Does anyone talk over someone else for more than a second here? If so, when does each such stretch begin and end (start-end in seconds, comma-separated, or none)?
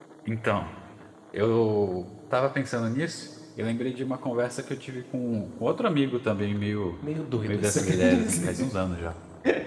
7.5-8.7